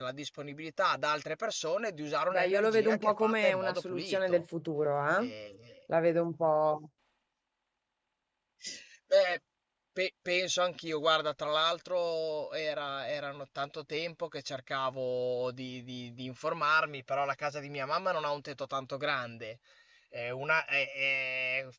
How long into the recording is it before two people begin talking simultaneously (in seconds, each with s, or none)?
2.3 s